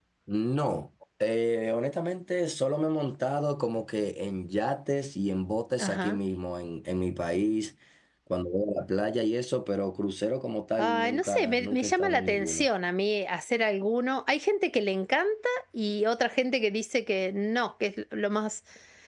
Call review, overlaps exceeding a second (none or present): present